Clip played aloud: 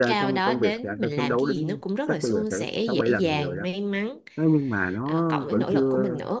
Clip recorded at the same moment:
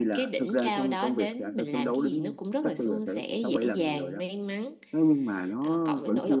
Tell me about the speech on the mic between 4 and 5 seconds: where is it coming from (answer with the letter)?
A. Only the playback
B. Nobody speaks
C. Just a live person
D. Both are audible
A